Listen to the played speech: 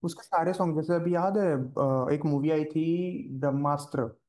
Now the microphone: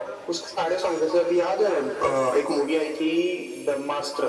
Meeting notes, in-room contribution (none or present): none